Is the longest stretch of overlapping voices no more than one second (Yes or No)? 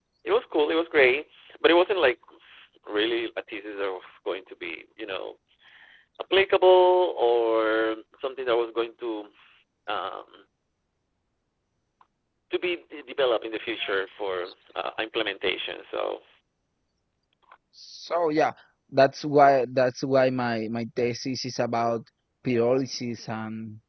Yes